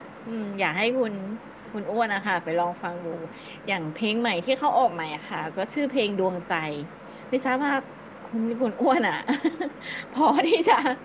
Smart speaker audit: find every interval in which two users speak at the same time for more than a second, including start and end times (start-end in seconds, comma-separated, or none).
none